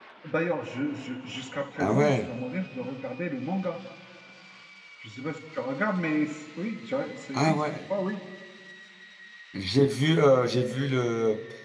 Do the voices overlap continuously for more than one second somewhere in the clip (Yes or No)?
No